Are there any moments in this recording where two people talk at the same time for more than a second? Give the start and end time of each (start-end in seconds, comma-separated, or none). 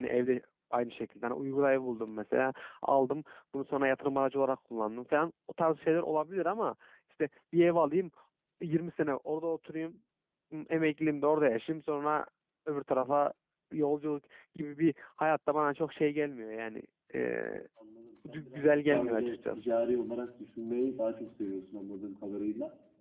18.3-19.6